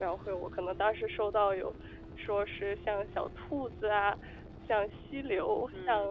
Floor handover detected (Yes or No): Yes